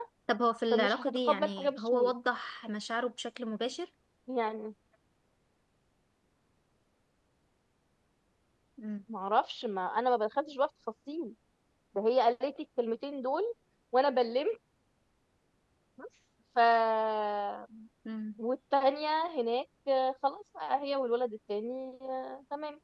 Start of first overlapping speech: 0.7 s

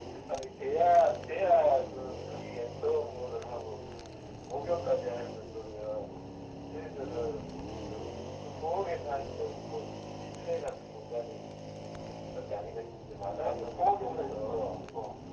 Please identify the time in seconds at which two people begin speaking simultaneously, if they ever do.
13.4 s

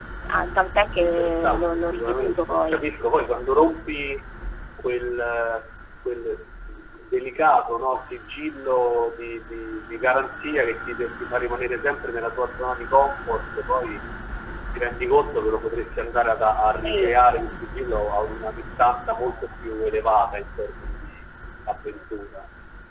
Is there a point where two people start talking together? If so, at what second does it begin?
1.0 s

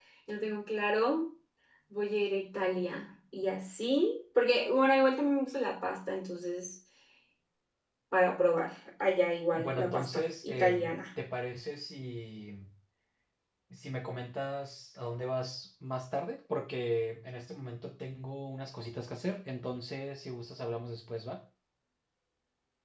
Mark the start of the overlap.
9.5 s

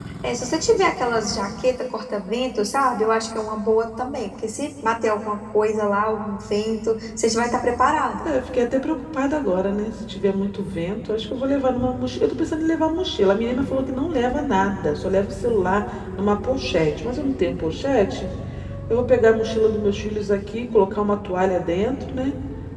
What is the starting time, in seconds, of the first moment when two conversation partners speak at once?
none

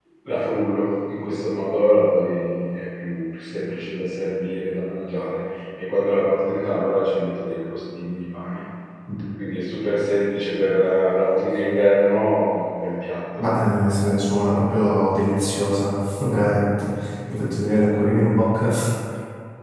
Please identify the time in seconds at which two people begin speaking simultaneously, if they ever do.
none

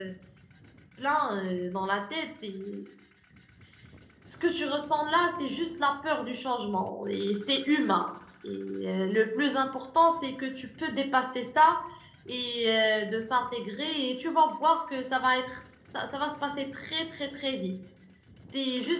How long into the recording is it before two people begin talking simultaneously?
none

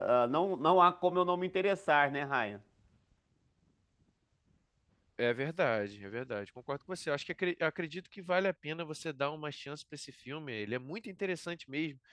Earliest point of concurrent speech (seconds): none

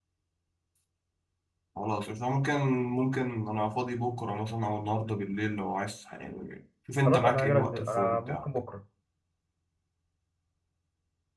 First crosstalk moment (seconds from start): 7.0 s

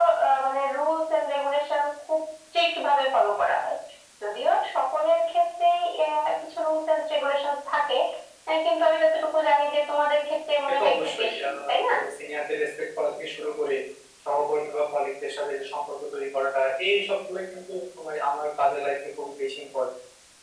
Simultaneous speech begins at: 10.7 s

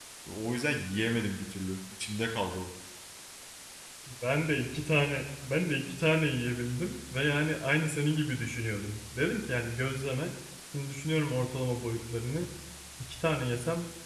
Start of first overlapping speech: none

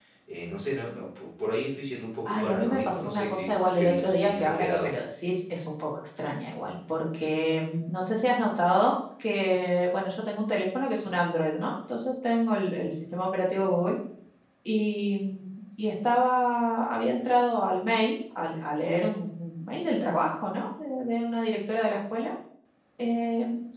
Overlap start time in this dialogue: 2.2 s

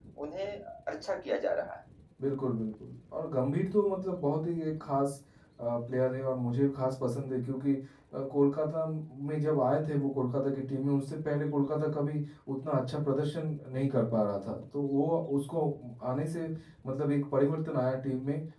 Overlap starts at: none

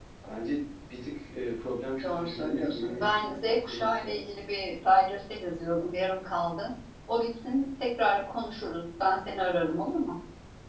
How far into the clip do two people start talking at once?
2.0 s

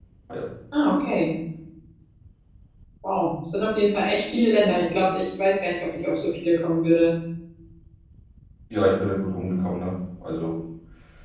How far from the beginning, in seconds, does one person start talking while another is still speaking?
none

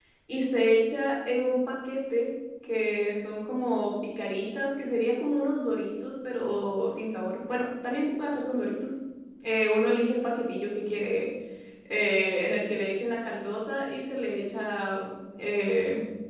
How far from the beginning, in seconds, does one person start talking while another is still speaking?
none

